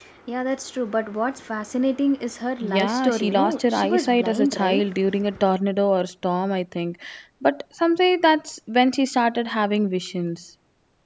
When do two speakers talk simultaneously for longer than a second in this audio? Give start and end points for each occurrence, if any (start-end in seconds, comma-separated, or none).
2.6-4.8